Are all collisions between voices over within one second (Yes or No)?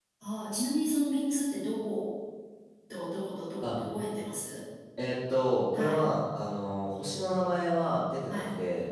Yes